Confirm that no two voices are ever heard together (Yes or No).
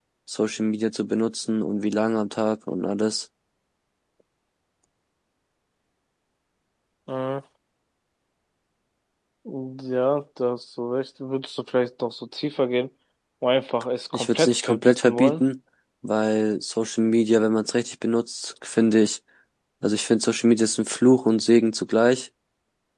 No